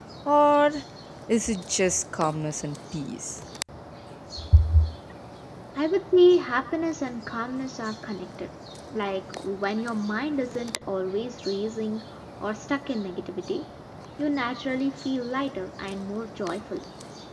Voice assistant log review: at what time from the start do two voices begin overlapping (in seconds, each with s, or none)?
none